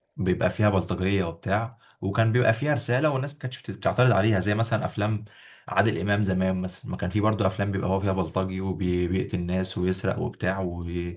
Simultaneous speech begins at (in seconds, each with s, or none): none